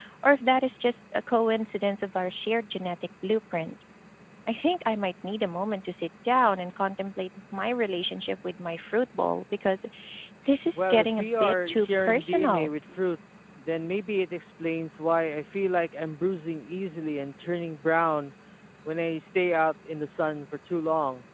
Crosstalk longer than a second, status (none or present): present